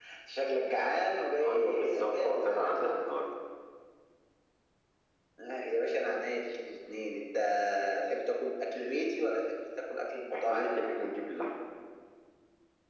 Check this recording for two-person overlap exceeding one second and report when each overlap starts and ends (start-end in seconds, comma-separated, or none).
1.4-3.2